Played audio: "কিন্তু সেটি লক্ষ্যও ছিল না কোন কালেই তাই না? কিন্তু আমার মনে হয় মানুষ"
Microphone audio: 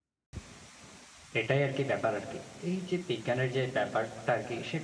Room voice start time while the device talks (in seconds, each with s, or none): 1.4 s